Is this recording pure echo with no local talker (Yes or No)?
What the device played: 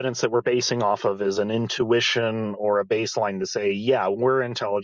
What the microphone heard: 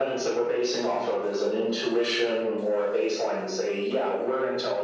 Yes